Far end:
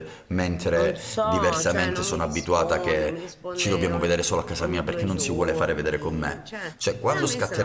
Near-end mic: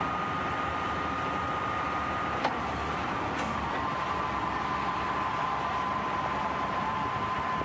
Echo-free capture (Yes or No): Yes